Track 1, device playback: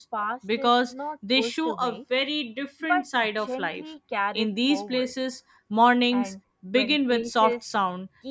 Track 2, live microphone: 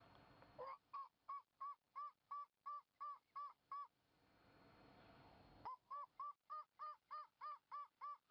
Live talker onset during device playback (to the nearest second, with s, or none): none